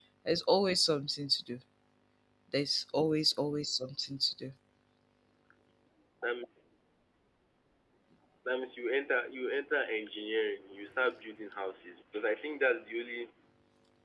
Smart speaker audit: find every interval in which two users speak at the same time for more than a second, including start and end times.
none

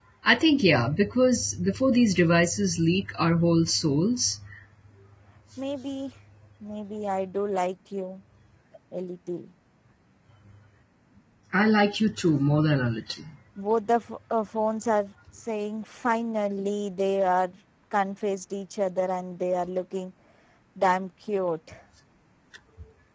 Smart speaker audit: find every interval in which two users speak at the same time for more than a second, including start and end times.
none

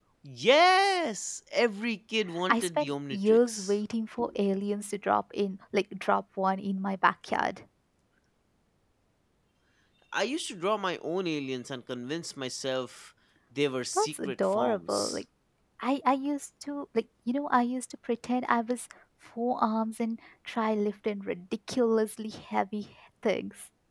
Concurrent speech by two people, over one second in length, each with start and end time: 2.5-3.7, 13.9-15.2

